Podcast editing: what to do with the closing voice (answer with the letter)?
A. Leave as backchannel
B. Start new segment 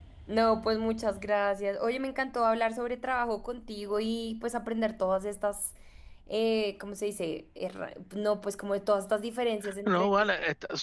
B